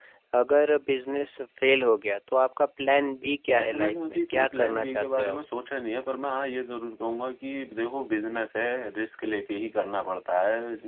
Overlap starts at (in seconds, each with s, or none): 3.5 s